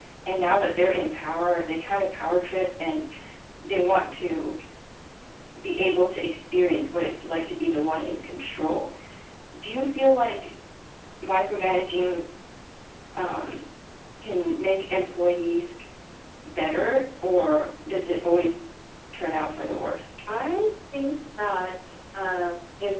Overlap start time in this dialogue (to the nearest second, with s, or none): none